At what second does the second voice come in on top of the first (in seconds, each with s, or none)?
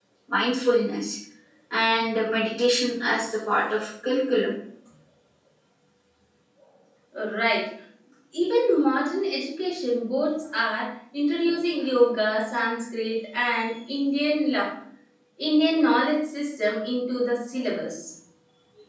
none